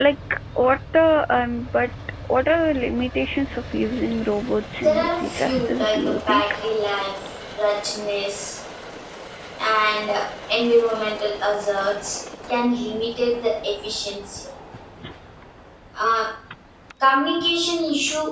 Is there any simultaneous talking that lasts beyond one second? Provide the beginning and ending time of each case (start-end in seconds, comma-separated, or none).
4.8-6.4